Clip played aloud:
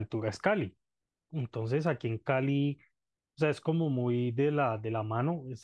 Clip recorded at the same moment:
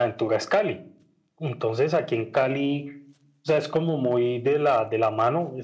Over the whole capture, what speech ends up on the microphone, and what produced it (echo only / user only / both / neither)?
echo only